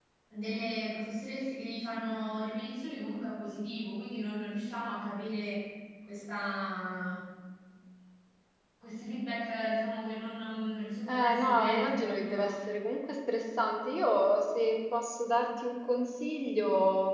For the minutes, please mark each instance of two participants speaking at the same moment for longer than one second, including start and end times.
11.1-12.6

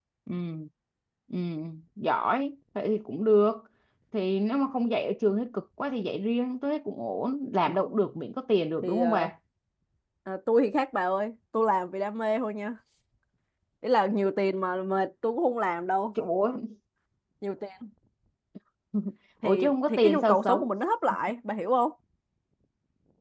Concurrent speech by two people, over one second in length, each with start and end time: 19.4-20.6

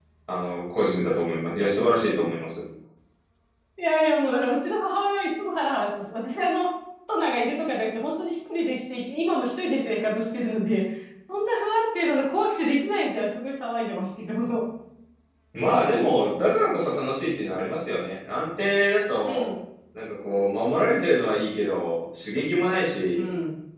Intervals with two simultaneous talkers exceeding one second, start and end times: none

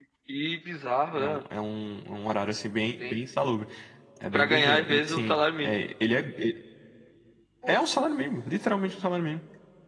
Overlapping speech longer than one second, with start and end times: 4.3-5.8

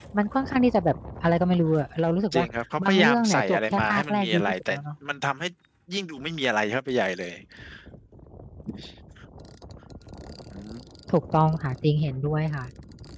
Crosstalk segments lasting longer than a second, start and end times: 2.8-4.7

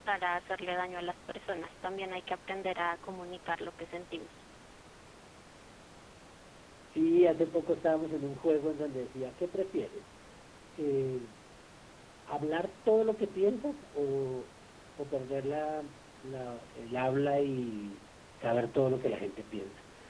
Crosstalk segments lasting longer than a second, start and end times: none

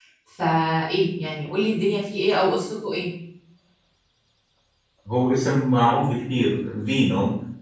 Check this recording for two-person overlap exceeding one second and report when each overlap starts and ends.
none

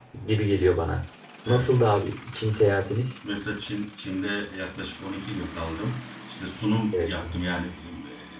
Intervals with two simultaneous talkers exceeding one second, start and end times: none

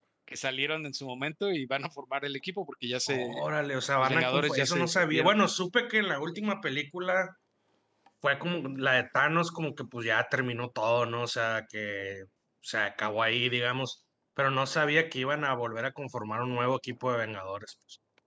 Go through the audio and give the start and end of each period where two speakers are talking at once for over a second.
4.0-5.3

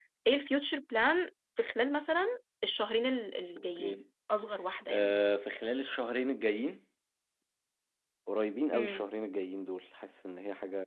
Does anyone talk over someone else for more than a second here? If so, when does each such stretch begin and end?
none

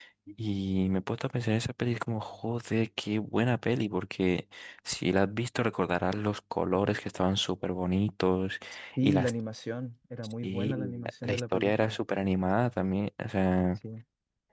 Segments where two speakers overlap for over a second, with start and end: 10.4-12.0

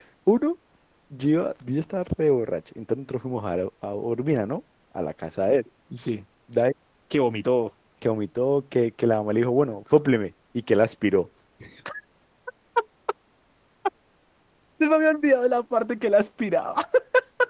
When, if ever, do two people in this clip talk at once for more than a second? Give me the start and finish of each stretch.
none

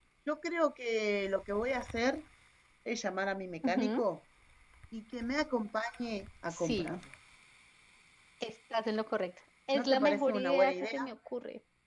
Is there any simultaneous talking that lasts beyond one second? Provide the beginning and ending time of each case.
9.7-11.1

